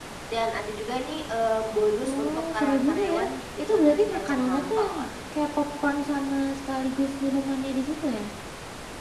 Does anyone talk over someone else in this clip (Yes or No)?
Yes